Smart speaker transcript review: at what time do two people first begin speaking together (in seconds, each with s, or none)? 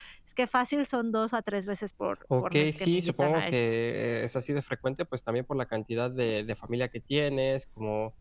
2.3 s